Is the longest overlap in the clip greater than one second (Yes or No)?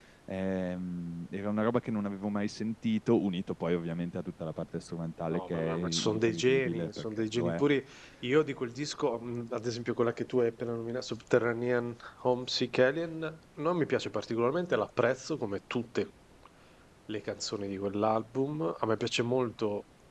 Yes